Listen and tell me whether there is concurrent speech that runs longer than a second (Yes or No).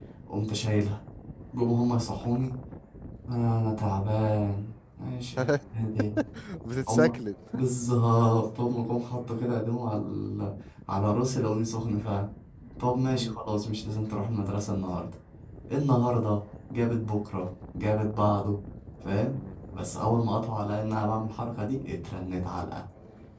No